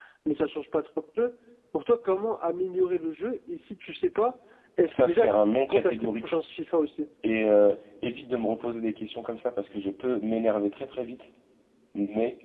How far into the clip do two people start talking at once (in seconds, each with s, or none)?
4.9 s